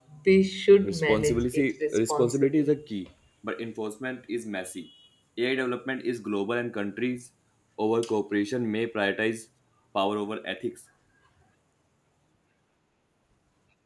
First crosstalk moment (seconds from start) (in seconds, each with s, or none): 0.8 s